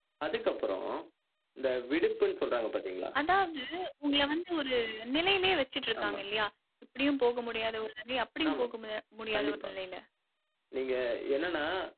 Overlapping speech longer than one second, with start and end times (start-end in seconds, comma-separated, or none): none